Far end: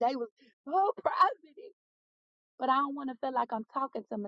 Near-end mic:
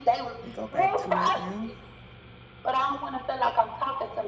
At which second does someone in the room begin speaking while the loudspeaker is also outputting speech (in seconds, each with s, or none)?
0.4 s